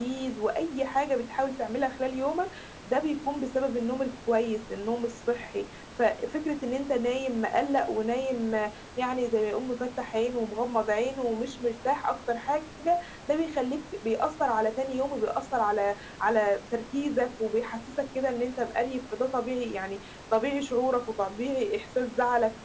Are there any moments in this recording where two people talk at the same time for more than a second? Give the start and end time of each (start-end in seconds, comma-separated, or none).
none